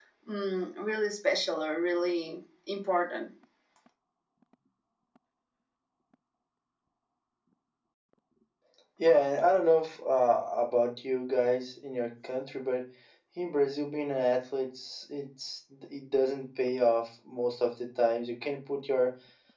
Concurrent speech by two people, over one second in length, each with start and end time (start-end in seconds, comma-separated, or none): none